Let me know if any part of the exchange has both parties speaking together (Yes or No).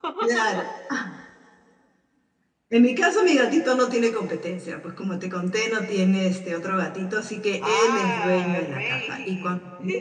Yes